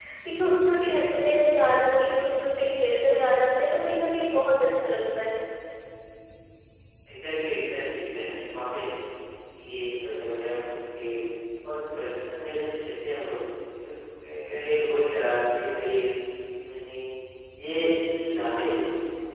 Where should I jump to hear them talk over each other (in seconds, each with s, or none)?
none